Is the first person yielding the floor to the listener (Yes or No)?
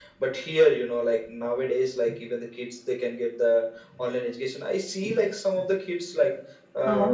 No